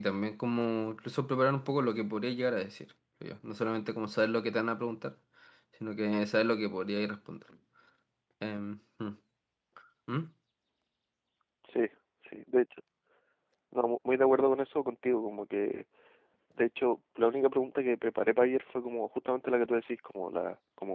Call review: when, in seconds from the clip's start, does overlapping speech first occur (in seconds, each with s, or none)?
none